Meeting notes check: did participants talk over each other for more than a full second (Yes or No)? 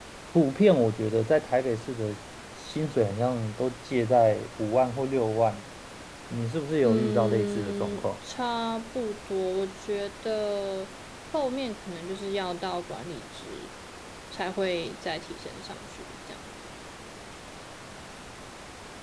Yes